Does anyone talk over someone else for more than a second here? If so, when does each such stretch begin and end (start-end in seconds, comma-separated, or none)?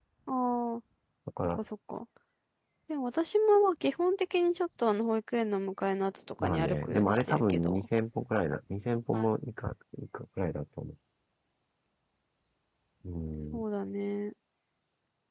6.4-7.9